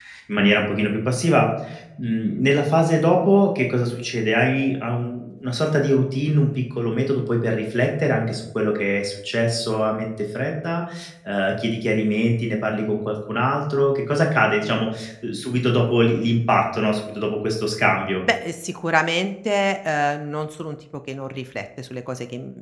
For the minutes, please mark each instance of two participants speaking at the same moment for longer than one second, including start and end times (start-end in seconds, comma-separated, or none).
none